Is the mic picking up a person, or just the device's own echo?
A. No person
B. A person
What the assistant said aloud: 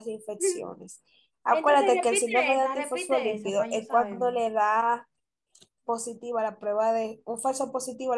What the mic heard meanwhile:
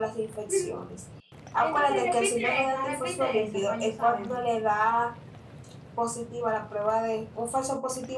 A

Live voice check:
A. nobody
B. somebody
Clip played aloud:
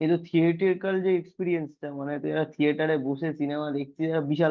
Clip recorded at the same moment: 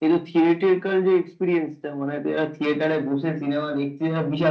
A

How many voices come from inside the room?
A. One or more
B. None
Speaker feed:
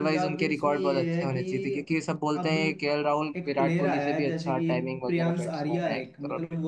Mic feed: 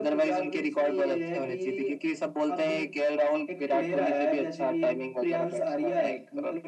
B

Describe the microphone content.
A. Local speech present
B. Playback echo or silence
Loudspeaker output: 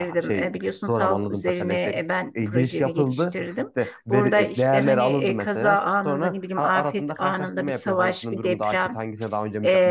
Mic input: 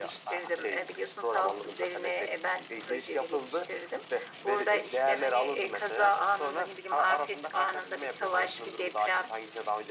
B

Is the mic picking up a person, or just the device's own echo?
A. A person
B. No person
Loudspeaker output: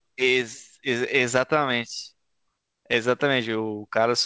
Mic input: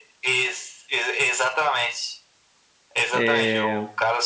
A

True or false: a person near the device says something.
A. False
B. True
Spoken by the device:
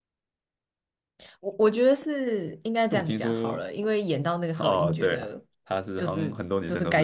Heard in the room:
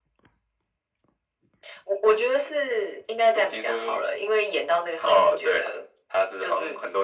A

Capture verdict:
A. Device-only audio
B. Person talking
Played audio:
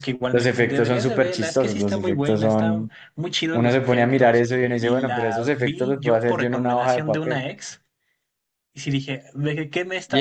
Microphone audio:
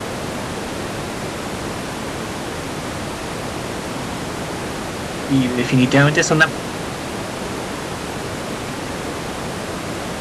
B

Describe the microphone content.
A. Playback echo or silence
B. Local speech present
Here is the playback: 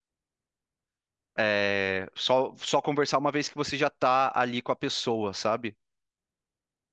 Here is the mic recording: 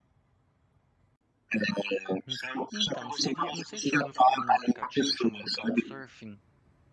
B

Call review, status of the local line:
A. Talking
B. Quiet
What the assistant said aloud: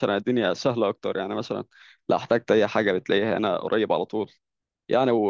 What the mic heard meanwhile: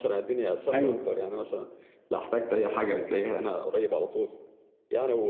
A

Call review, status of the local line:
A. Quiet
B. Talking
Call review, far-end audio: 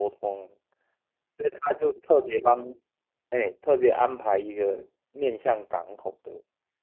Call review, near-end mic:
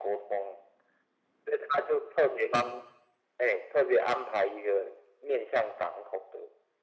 A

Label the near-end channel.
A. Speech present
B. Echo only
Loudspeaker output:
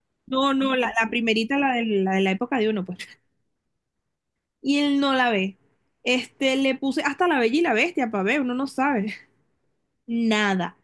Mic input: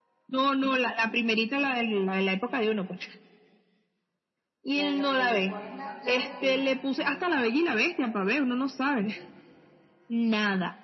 A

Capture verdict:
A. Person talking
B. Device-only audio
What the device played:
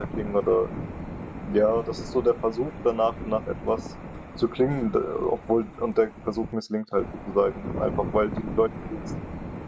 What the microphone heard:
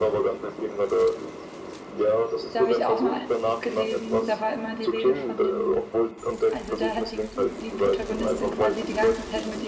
A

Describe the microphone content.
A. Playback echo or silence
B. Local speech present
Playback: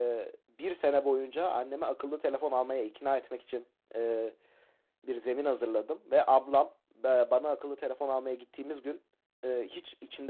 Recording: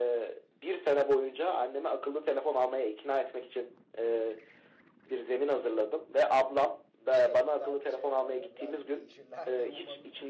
B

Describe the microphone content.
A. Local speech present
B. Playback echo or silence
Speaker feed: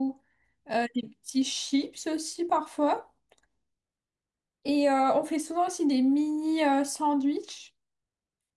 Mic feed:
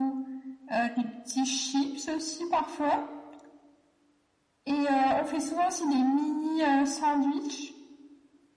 B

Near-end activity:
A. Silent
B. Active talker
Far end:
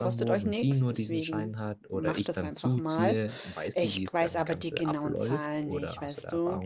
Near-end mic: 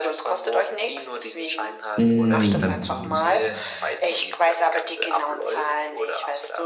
B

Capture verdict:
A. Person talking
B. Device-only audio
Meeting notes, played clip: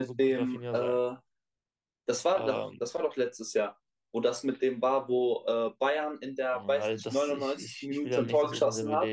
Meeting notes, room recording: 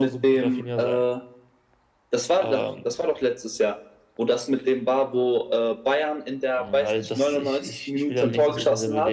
B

